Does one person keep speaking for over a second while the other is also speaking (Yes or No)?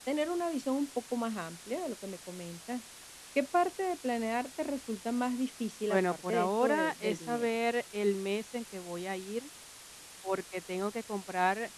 Yes